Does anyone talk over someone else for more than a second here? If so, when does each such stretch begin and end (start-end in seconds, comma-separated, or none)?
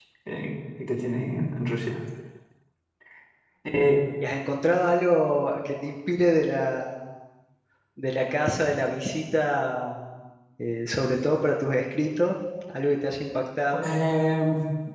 none